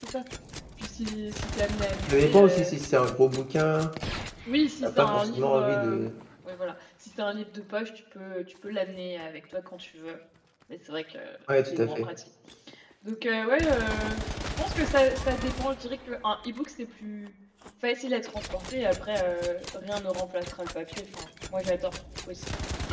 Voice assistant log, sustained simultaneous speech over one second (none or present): present